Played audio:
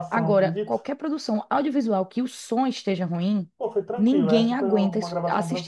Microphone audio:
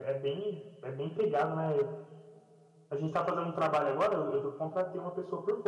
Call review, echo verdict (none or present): none